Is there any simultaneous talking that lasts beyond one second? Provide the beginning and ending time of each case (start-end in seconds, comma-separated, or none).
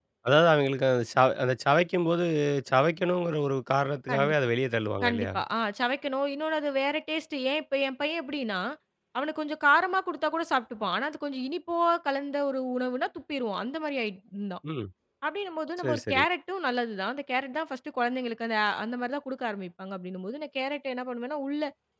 none